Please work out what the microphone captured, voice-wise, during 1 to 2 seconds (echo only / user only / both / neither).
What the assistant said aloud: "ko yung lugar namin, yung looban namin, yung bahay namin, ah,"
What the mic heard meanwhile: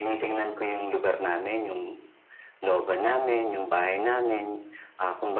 echo only